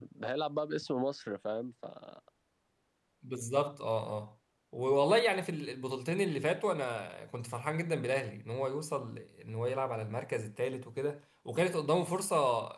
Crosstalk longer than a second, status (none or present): none